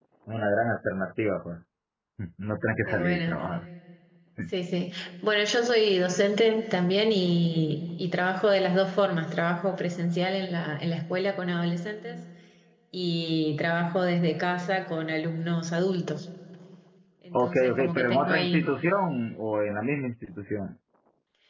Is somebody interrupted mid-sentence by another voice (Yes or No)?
Yes